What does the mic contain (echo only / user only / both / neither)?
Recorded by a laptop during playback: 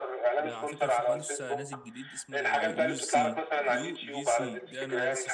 both